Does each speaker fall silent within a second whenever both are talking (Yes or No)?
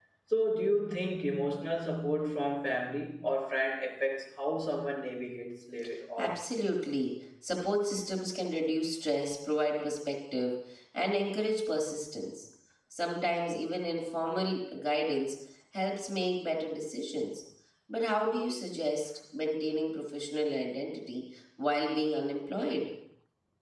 Yes